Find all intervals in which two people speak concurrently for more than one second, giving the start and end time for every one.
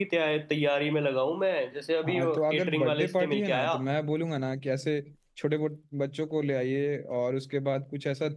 2.0-3.8

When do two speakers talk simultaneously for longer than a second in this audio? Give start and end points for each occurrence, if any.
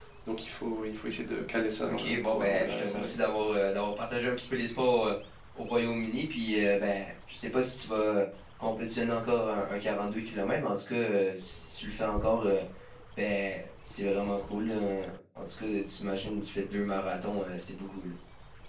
1.8-3.1

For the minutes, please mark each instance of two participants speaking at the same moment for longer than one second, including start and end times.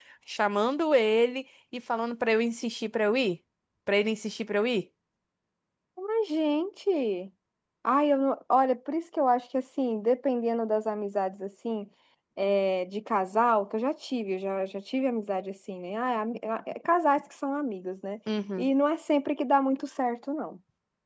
none

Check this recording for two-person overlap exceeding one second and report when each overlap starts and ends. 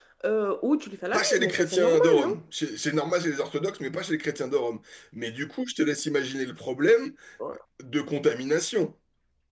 1.1-2.4

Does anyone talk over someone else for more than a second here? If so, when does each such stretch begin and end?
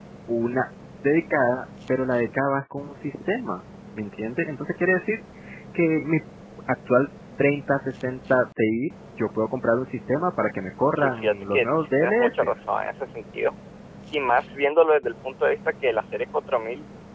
10.9-12.5

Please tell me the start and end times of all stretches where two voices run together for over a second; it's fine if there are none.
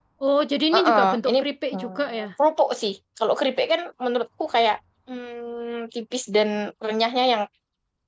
0.7-2.3

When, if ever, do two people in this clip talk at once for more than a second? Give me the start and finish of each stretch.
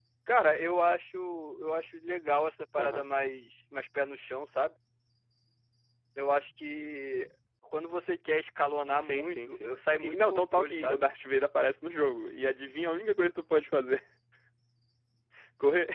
9.0-11.0

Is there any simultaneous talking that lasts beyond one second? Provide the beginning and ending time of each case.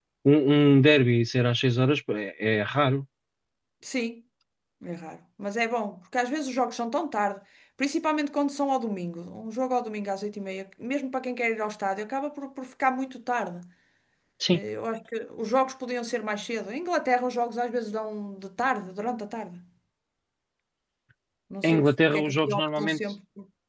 21.6-23.0

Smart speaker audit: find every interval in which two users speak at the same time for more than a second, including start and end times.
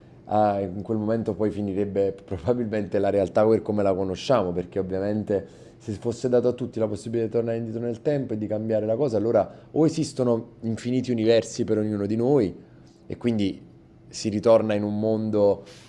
none

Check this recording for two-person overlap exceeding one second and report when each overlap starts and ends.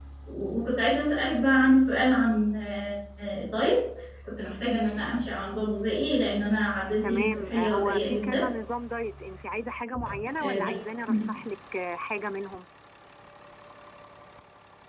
7.0-8.4

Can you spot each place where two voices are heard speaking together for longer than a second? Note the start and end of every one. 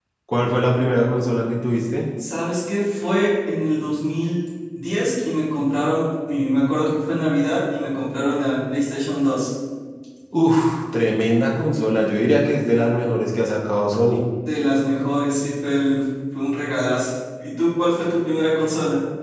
none

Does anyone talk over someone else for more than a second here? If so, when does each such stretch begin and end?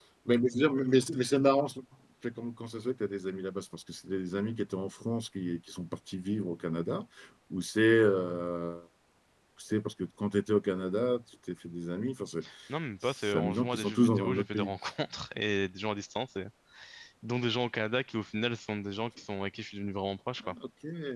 13.0-14.7

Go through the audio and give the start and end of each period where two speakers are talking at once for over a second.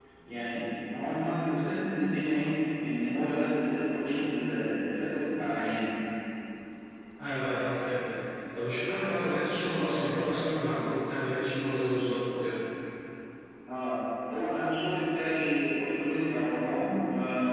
none

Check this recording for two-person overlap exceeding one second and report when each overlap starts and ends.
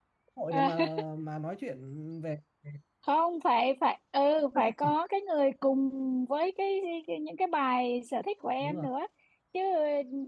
none

